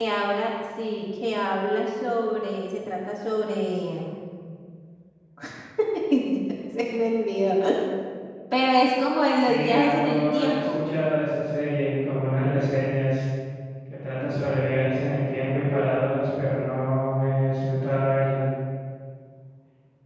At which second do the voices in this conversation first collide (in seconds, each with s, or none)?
9.5 s